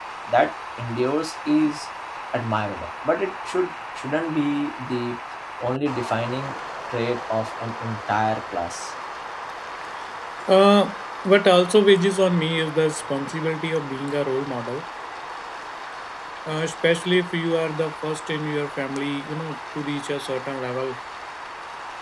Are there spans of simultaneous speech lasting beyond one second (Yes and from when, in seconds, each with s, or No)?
No